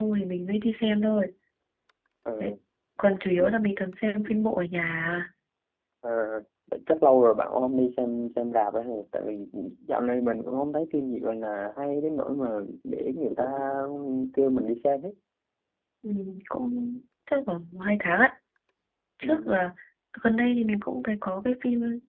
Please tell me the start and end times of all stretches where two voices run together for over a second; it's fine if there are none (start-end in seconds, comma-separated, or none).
none